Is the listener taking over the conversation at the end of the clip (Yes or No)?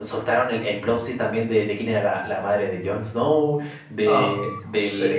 No